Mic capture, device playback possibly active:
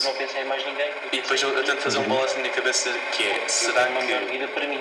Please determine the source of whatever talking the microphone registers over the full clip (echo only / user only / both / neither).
both